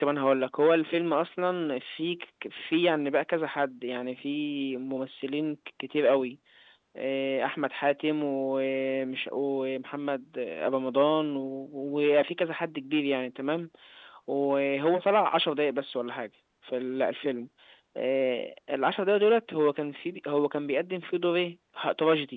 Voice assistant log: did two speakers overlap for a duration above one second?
No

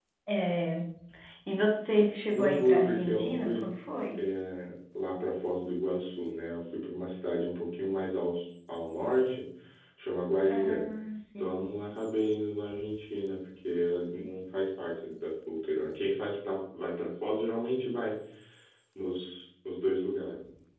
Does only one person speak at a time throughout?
No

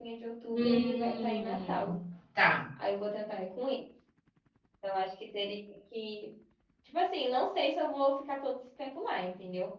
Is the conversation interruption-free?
No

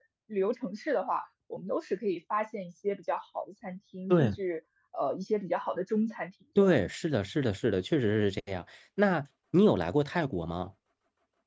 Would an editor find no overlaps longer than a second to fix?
Yes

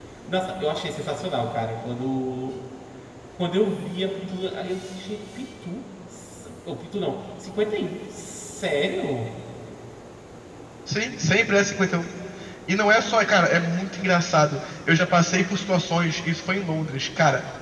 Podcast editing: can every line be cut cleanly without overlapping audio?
Yes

